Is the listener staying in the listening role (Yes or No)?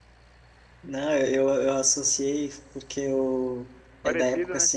Yes